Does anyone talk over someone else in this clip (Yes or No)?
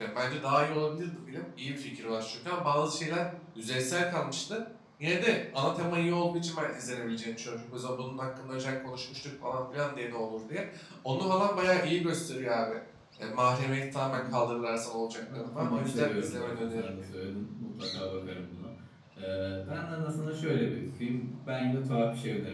Yes